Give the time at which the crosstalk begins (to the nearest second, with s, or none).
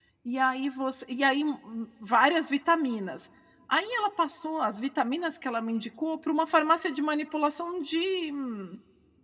none